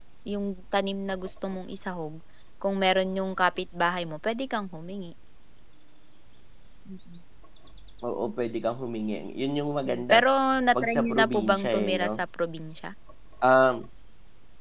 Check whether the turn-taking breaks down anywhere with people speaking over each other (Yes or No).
Yes